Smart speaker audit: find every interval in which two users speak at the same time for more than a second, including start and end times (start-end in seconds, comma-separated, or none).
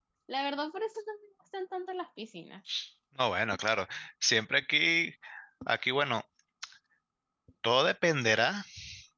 none